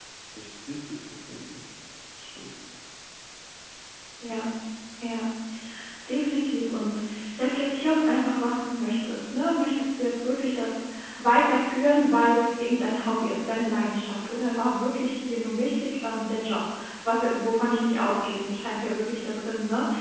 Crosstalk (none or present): none